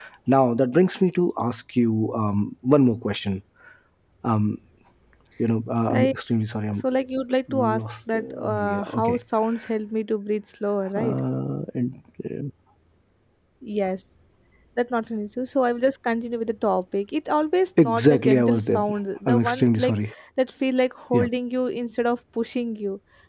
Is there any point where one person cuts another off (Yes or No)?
Yes